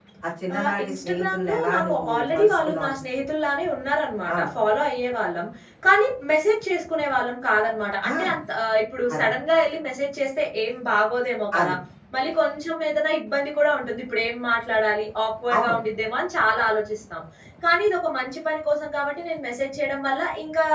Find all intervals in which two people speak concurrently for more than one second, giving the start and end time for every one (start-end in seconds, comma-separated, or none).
0.6-2.9